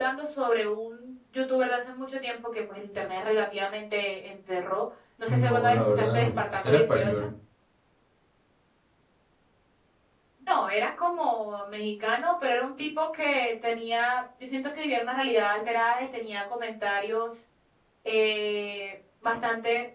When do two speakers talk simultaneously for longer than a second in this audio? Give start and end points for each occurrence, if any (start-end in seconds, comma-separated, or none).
5.3-7.3